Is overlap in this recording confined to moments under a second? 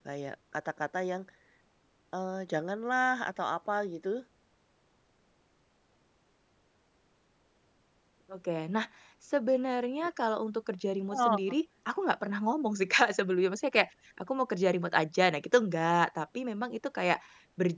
Yes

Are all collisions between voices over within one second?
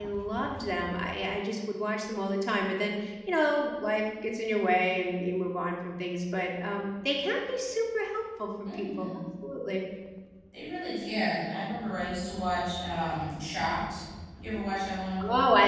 Yes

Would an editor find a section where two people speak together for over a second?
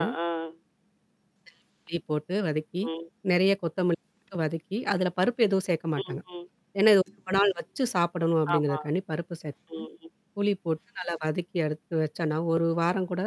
No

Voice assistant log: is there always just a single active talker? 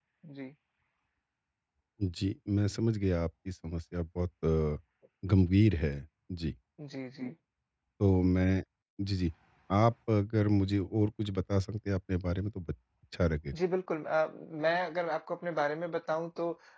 Yes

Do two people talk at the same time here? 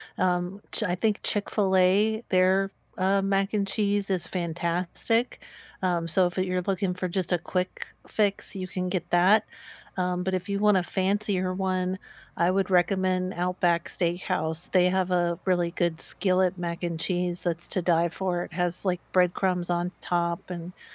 No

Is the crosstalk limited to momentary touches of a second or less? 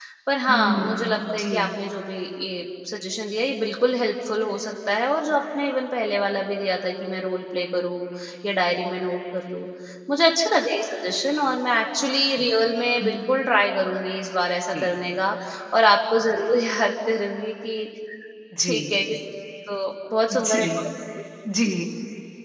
No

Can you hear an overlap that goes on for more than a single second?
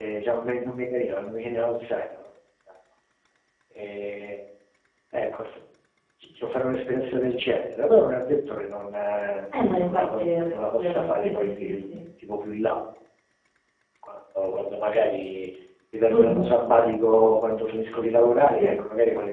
Yes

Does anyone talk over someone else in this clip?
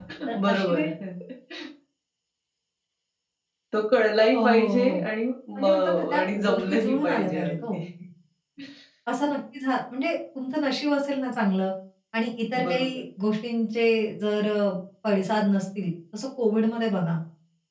Yes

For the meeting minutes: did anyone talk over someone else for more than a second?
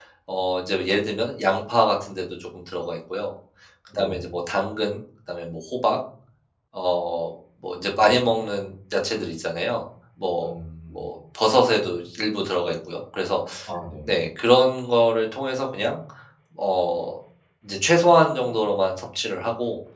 No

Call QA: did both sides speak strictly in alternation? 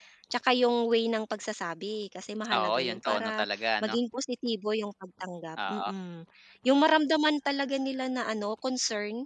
No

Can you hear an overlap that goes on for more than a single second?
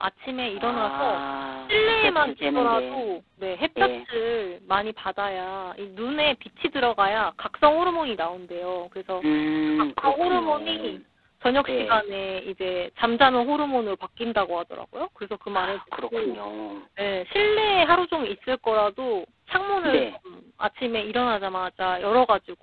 Yes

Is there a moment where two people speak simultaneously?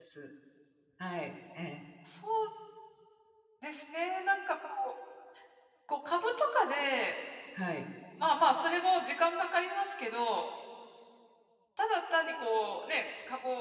No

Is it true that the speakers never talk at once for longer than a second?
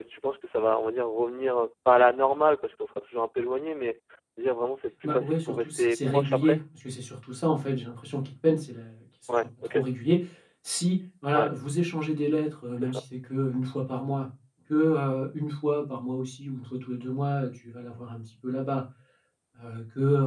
No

